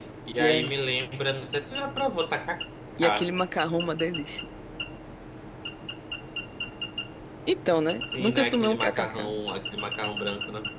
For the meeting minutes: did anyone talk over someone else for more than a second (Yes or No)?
Yes